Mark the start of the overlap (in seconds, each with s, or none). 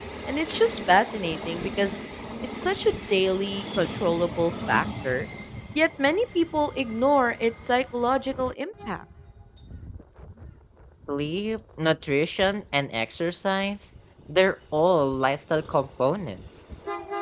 none